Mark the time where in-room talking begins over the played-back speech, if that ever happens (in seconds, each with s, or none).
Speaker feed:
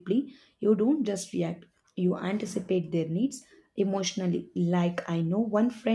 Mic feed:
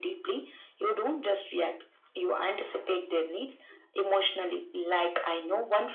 none